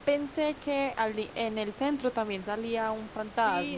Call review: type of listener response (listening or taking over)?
taking over